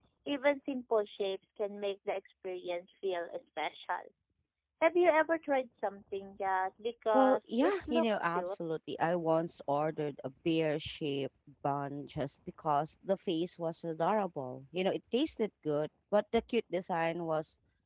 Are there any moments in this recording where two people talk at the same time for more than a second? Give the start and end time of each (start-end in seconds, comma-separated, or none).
7.1-8.6